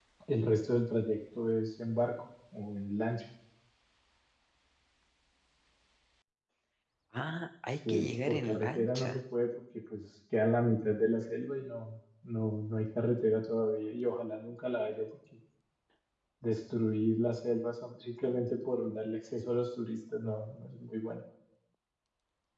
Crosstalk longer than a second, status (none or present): present